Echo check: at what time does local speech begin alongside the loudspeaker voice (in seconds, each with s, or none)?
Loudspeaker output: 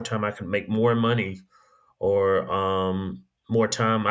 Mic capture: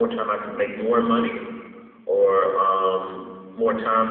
none